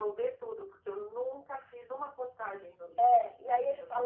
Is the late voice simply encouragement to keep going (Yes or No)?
No